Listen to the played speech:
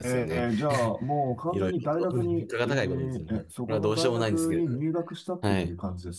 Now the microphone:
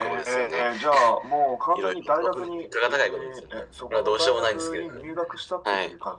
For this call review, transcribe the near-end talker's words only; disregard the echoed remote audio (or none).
none